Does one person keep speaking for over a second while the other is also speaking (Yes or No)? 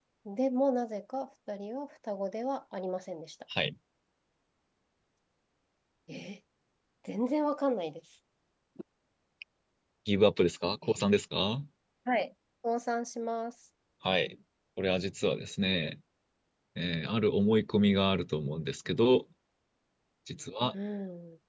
No